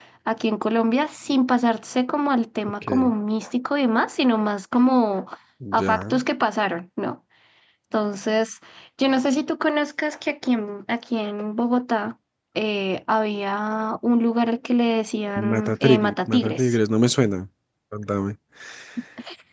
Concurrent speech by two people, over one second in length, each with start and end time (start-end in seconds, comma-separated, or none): 15.3-16.8